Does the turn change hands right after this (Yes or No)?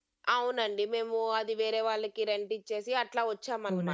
Yes